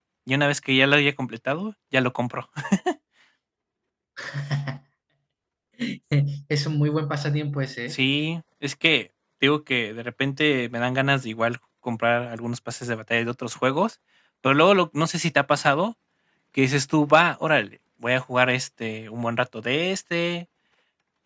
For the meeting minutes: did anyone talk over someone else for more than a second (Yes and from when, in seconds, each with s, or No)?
No